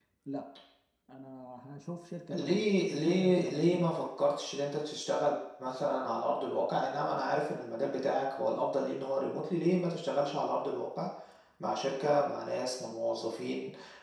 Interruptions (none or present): present